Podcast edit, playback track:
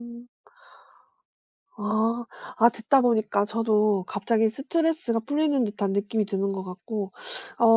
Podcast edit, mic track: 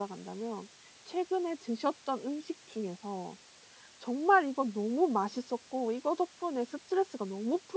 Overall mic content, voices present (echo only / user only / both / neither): user only